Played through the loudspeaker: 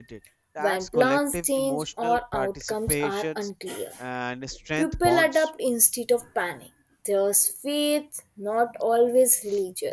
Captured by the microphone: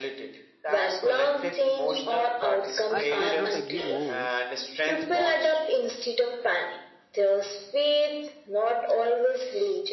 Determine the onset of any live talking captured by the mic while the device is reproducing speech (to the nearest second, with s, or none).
3 s